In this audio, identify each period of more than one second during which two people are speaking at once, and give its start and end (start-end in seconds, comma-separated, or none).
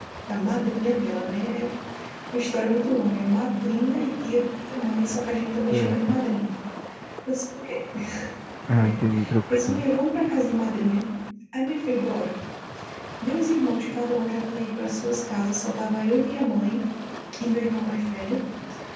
none